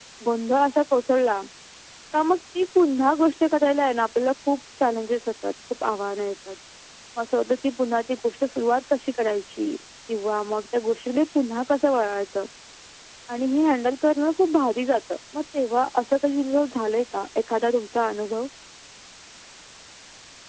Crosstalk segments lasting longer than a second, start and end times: none

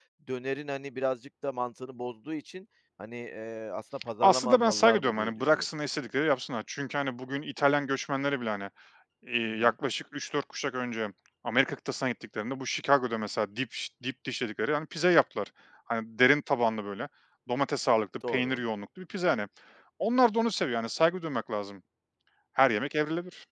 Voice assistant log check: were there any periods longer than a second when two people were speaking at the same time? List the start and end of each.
4.2-5.6

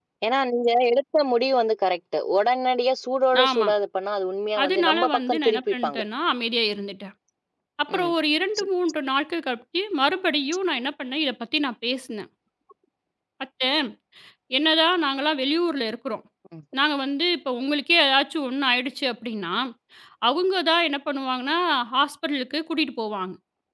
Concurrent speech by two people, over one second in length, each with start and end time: 4.6-6.0

